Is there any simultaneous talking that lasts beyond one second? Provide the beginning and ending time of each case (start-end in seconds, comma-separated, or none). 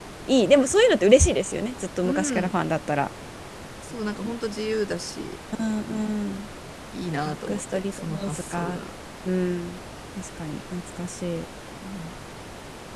7.2-8.8